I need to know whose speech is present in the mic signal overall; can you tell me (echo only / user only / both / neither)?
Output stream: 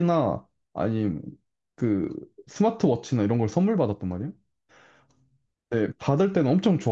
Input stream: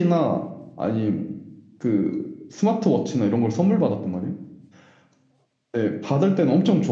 echo only